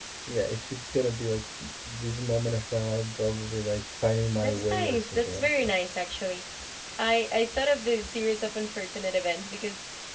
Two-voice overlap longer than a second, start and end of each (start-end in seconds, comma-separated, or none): 4.4-5.7